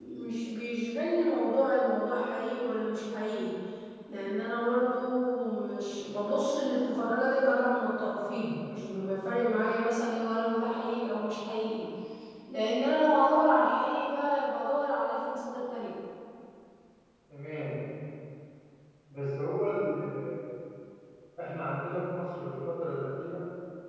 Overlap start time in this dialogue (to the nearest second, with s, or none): none